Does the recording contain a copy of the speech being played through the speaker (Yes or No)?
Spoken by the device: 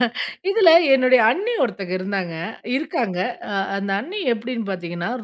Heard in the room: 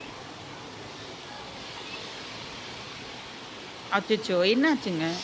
No